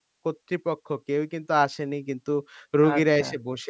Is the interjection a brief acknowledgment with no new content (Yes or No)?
Yes